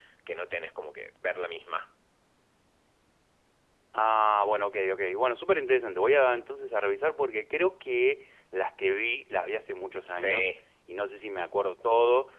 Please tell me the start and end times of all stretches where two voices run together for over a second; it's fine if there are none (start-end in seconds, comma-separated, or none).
none